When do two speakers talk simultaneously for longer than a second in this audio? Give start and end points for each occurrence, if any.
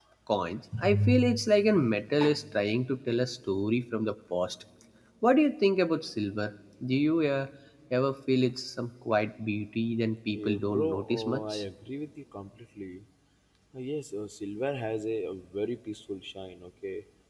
10.3-11.6

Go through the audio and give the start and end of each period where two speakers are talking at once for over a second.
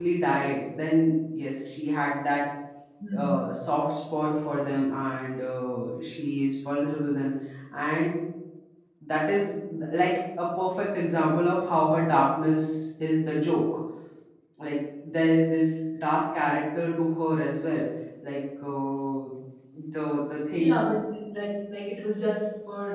none

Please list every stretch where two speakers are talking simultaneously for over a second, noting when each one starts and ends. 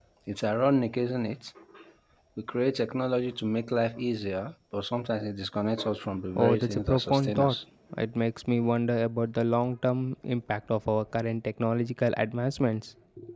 6.4-7.6

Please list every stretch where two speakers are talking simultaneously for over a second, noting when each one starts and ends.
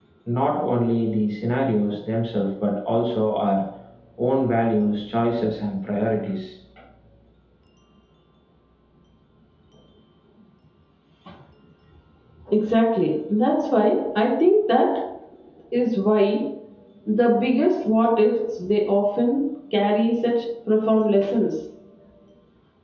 none

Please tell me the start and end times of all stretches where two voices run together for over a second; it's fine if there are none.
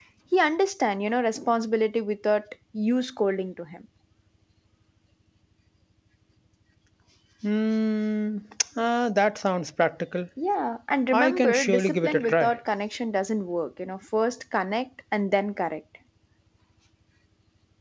11.1-12.5

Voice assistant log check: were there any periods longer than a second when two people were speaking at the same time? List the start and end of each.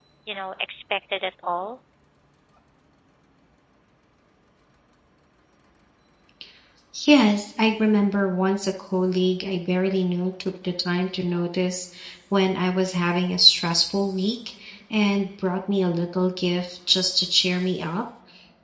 none

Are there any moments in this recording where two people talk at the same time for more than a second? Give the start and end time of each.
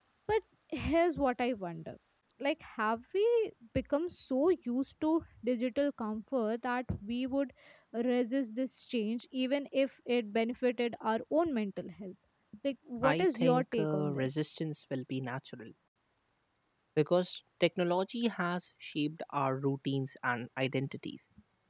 13.0-14.4

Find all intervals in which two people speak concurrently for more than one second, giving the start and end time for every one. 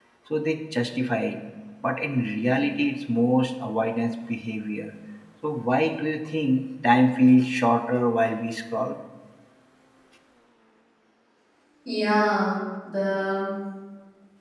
none

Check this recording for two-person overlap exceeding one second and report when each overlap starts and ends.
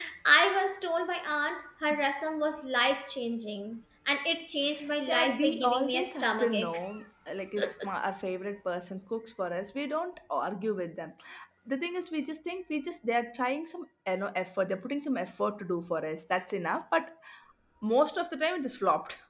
5.1-6.8

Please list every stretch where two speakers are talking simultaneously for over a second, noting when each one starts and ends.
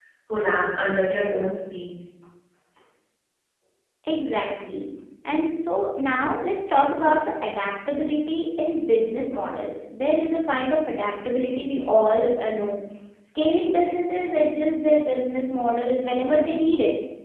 none

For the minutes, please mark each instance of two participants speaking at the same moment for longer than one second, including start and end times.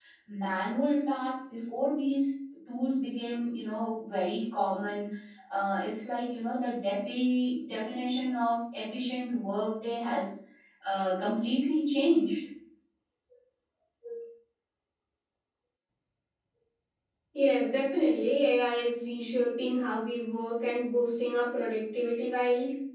none

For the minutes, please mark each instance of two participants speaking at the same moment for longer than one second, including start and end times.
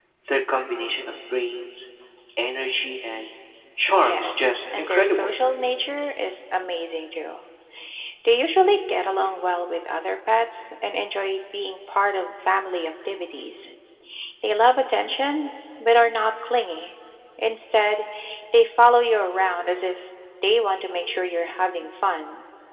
3.9-5.3

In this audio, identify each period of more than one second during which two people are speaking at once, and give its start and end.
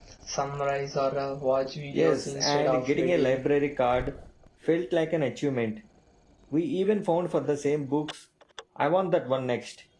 1.9-3.4

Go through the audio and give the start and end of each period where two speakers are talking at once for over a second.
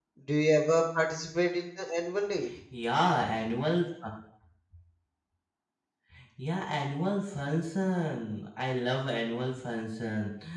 none

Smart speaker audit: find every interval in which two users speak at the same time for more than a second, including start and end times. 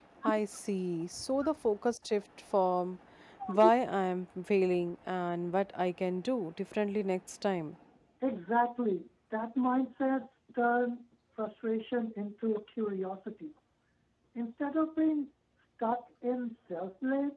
none

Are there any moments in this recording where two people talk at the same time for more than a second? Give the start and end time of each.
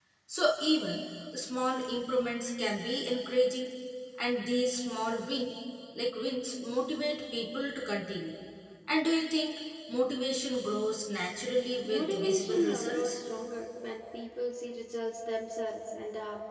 11.8-13.2

